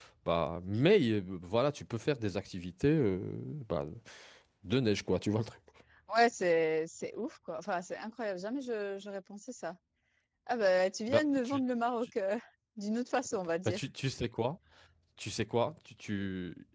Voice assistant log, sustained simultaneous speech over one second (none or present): none